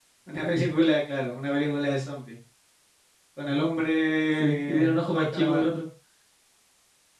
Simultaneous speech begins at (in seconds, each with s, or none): 4.4 s